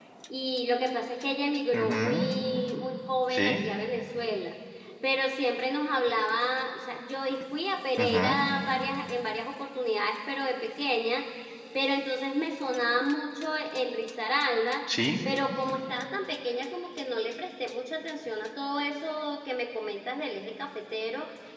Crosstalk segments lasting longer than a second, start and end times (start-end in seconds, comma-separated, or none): none